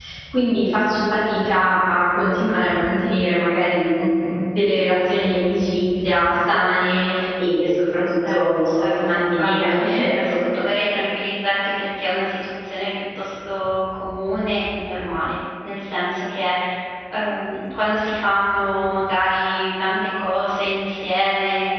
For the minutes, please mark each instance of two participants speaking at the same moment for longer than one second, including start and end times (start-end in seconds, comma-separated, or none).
8.3-10.4